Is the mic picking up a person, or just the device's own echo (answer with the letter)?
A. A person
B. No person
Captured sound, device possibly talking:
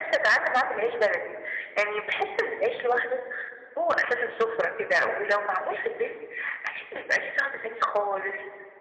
B